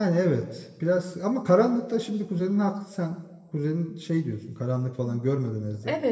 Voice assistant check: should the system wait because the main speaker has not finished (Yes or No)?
No